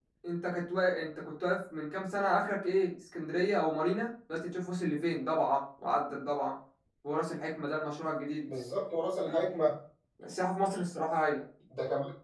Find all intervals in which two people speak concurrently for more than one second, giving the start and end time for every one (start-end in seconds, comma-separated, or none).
none